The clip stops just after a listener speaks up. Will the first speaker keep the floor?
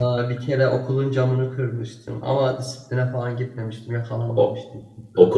No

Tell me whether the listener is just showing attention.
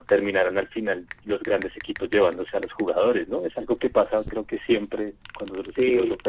No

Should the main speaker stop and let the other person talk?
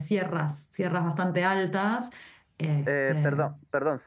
Yes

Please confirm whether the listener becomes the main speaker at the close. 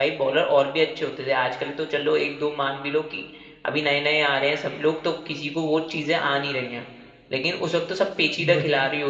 No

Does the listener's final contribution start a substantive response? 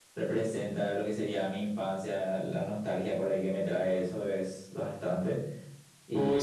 Yes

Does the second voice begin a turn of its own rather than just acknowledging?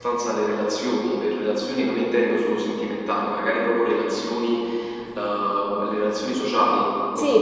Yes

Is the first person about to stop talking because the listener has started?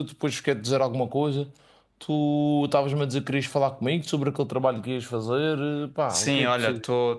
Yes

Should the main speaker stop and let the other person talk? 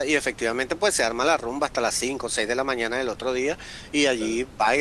No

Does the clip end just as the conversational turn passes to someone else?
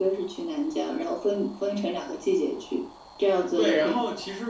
Yes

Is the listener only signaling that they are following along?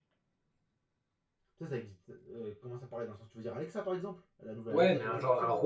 No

